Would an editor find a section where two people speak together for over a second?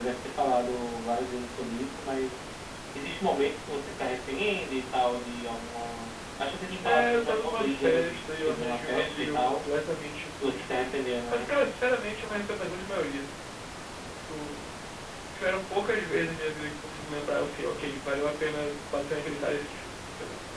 Yes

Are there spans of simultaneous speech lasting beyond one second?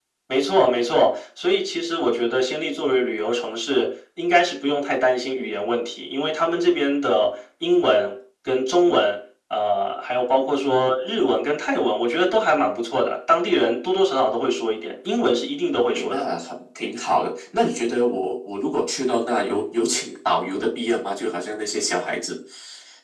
No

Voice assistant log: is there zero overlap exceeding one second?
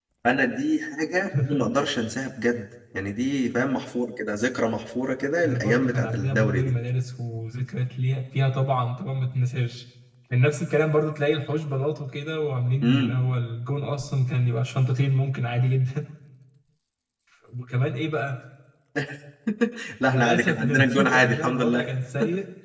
No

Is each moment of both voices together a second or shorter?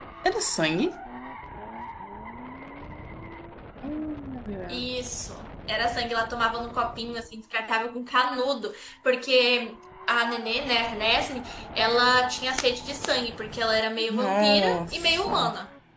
No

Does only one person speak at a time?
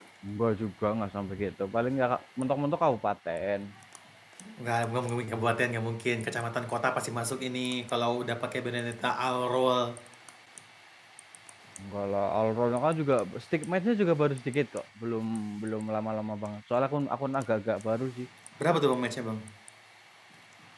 Yes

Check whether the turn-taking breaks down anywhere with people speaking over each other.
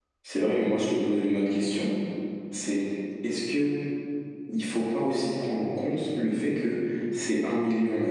No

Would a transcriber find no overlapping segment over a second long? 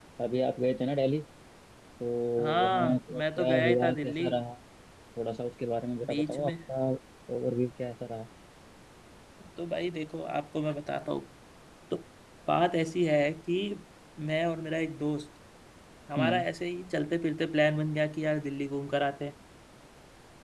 No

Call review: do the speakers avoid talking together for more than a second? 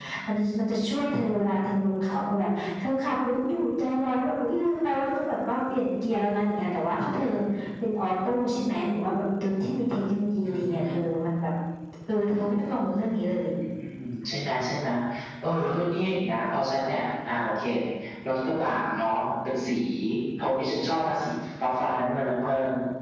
Yes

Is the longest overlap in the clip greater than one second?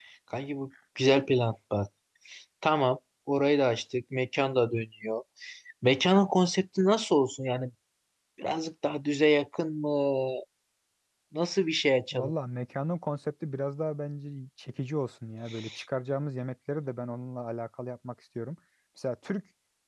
No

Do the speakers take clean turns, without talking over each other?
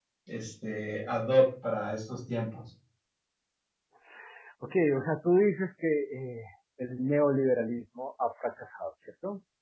Yes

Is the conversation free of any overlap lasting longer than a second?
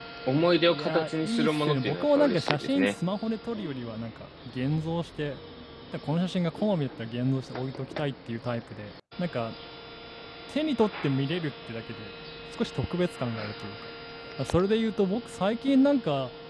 No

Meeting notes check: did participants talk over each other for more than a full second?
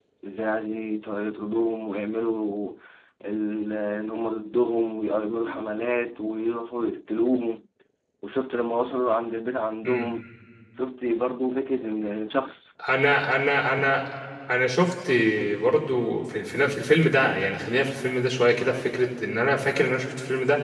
No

